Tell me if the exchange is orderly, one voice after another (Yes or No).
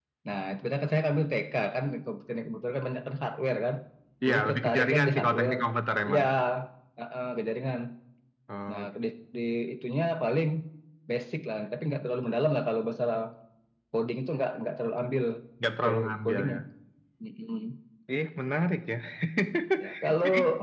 No